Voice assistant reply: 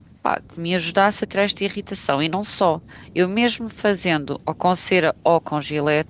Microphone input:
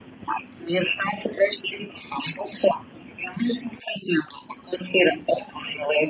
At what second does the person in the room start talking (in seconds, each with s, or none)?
none